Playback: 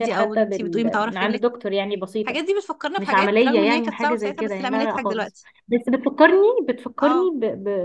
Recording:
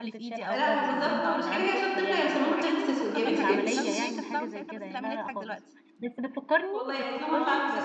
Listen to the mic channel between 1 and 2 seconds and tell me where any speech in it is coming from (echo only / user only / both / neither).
both